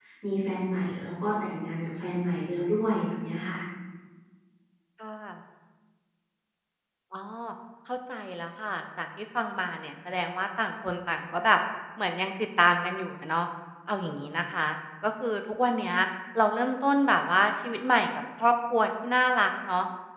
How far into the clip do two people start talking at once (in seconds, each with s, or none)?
none